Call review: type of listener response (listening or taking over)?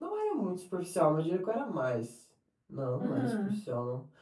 listening